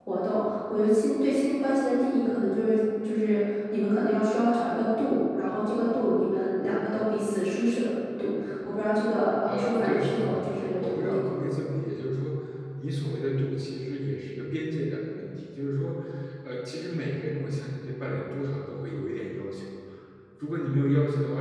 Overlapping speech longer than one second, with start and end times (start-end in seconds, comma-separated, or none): 9.5-11.2